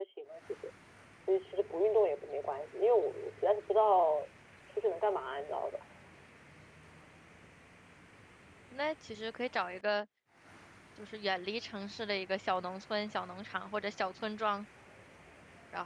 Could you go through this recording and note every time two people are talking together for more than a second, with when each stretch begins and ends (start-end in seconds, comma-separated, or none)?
none